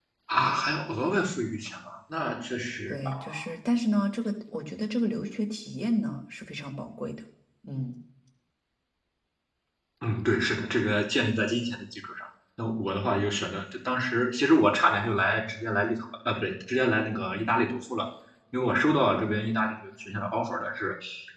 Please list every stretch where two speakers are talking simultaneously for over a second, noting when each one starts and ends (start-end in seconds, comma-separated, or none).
none